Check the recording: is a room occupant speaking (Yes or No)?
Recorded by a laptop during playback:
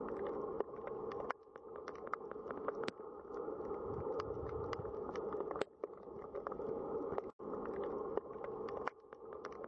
No